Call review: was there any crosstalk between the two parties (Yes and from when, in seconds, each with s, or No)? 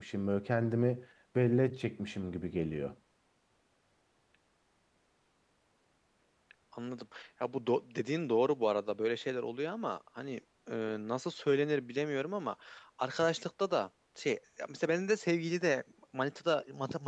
No